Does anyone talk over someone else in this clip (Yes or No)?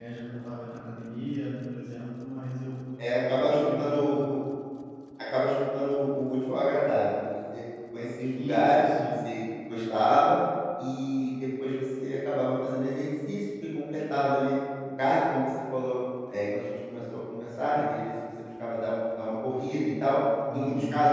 Yes